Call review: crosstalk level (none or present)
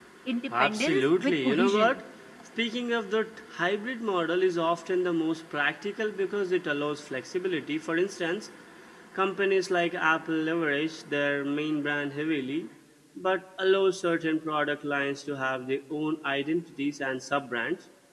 present